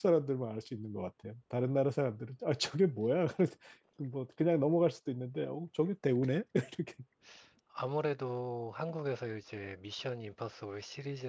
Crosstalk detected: No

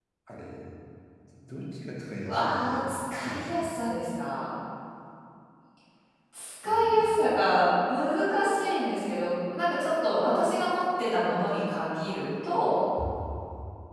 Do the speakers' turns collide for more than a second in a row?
Yes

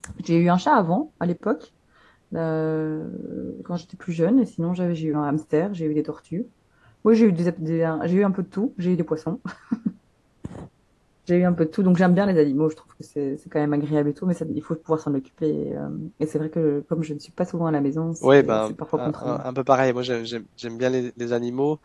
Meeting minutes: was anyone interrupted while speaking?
Yes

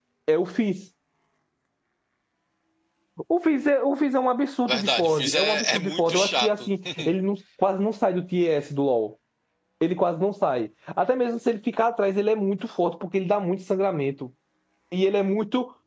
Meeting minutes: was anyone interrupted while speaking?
Yes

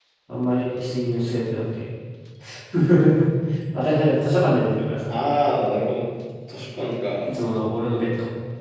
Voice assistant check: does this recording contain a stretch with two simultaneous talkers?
No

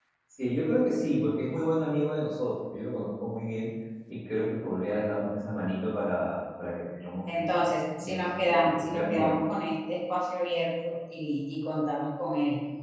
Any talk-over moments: Yes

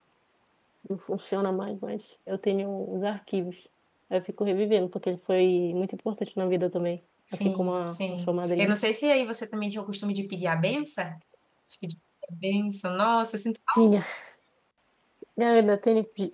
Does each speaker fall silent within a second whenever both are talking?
No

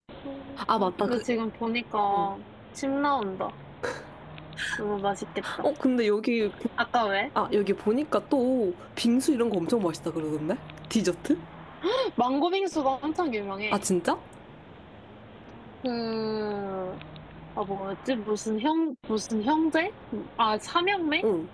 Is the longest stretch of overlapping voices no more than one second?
Yes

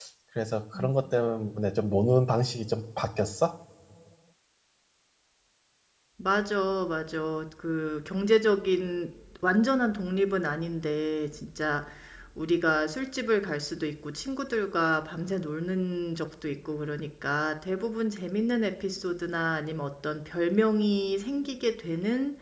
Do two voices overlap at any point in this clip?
No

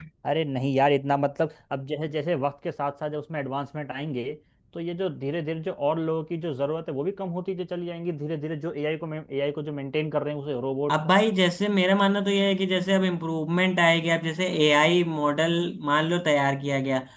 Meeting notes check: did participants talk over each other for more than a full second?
No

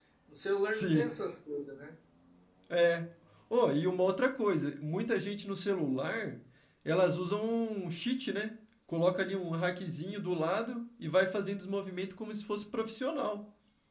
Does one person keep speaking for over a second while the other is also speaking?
No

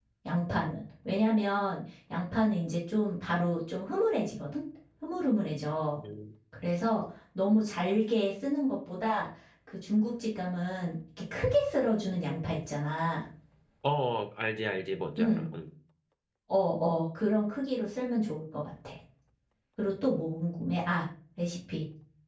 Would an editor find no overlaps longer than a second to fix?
Yes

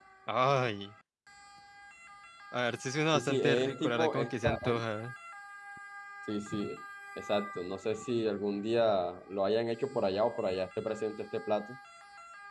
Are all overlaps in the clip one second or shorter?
No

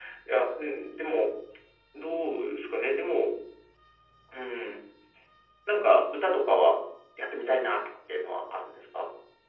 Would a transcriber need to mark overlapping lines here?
No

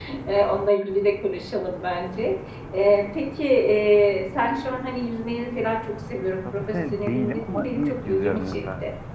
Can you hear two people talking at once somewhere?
Yes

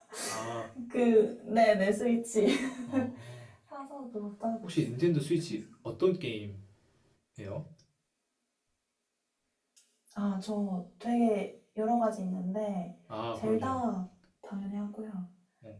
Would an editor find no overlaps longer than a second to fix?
Yes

